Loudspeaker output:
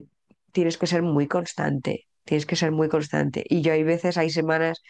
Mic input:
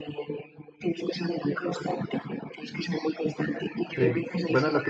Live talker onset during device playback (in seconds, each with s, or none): 4.0 s